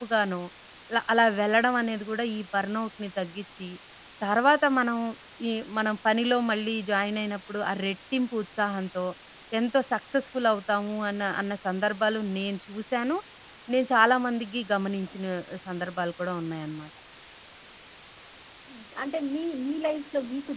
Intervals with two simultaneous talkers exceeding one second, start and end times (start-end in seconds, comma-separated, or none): none